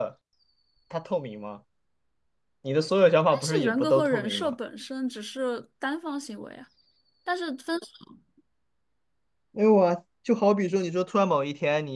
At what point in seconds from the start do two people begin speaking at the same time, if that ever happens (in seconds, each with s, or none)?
3.3 s